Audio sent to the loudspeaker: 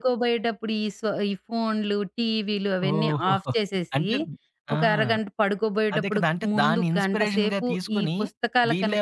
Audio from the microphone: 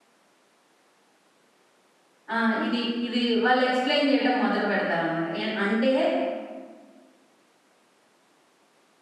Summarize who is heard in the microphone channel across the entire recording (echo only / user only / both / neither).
user only